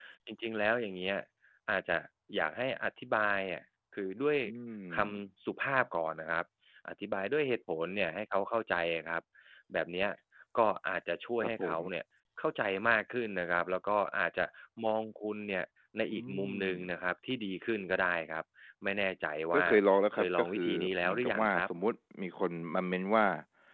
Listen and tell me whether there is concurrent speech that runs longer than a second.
Yes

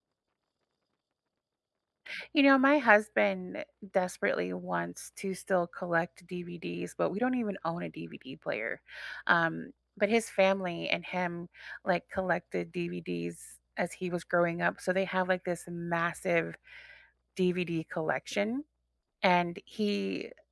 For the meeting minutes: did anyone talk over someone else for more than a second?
No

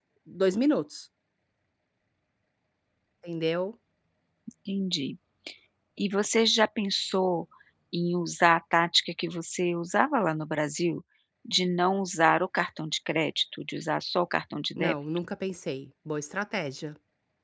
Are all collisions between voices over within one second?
Yes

